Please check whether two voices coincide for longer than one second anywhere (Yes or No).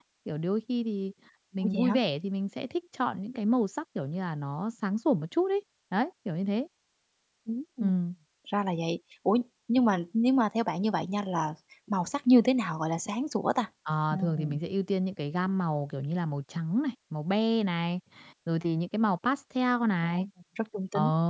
No